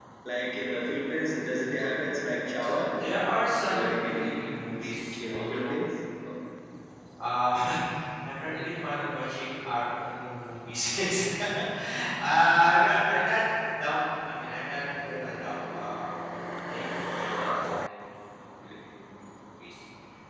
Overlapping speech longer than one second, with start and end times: 3.7-5.8

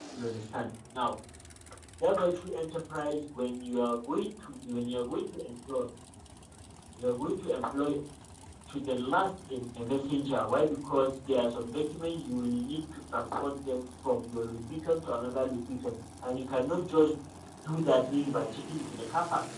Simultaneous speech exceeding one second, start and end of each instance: none

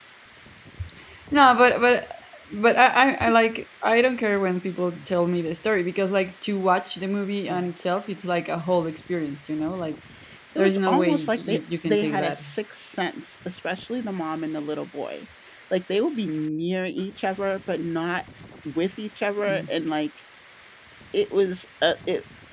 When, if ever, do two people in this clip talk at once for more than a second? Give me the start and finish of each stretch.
10.6-12.4

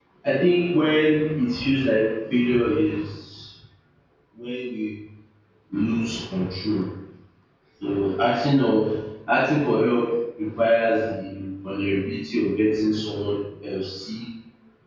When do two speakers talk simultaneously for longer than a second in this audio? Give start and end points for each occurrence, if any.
none

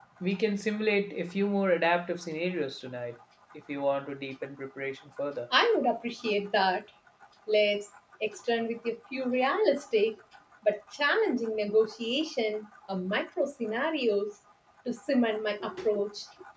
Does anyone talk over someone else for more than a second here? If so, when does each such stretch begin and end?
none

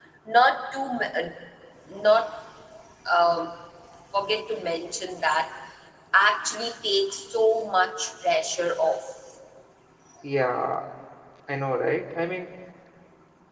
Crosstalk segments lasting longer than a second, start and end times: none

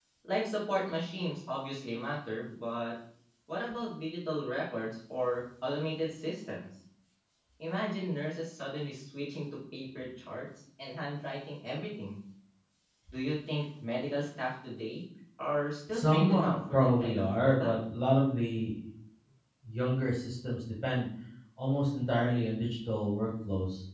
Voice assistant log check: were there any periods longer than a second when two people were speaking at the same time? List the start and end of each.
15.9-17.7

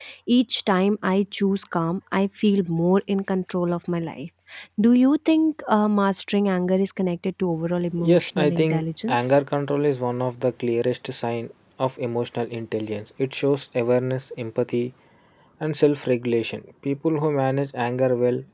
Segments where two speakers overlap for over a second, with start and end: 8.0-9.3

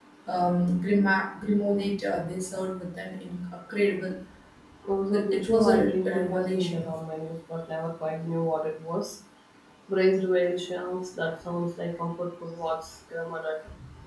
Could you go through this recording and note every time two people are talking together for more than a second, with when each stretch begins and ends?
5.1-6.9

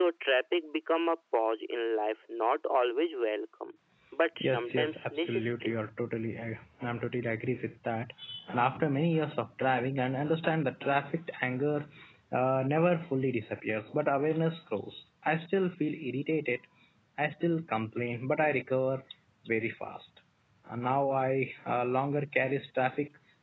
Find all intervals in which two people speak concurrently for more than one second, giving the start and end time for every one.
4.4-5.8

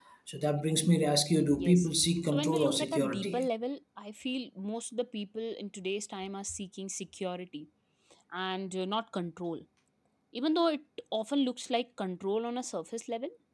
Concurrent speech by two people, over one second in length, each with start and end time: 1.6-3.5

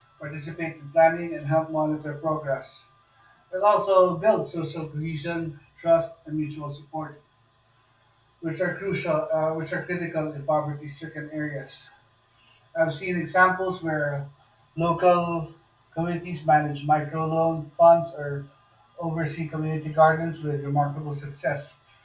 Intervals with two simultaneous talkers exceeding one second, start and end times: none

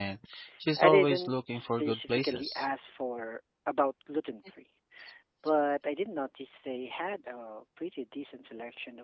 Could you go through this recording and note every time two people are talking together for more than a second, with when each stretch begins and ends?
0.8-2.6

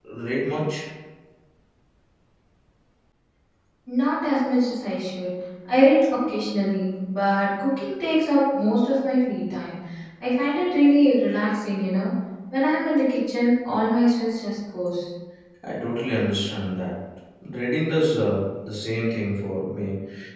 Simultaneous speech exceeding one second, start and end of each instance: none

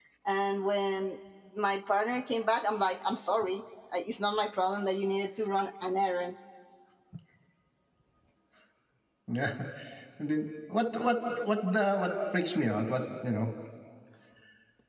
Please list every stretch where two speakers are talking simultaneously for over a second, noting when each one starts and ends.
none

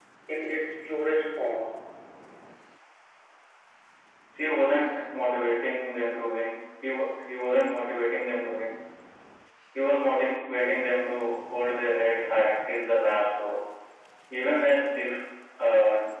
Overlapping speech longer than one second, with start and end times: none

